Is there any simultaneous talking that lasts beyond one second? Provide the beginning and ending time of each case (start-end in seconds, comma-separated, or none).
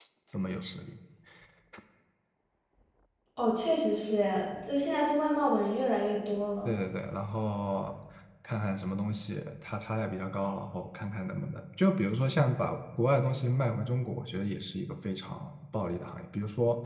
none